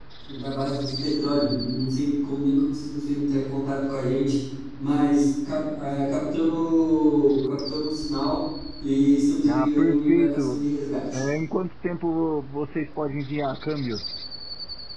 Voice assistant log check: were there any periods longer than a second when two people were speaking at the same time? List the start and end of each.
9.4-10.6

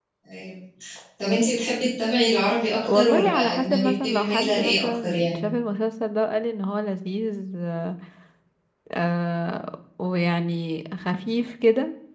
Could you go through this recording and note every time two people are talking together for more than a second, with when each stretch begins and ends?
2.8-5.4

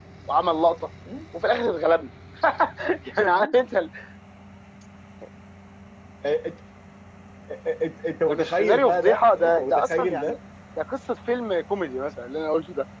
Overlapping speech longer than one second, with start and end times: 8.3-10.4

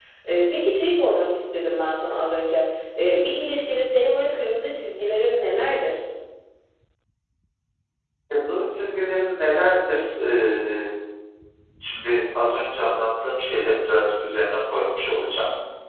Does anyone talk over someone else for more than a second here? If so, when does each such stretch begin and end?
none

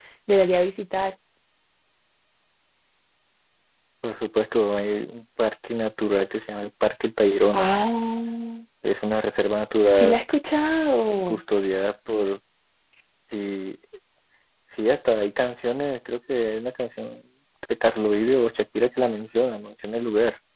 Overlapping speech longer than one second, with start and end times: none

